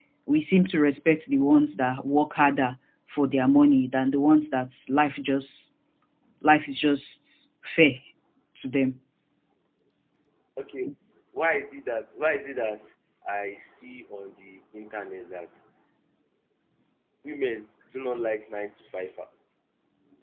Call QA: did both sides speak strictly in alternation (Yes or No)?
Yes